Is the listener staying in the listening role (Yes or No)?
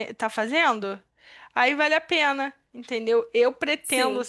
Yes